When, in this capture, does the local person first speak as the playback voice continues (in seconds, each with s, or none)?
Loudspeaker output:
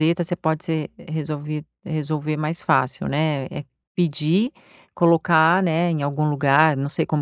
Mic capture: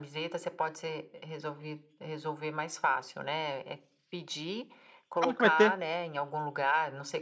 5.2 s